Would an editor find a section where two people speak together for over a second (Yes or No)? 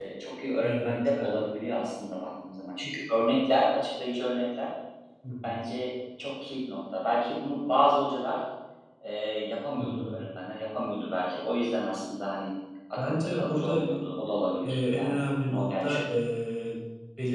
Yes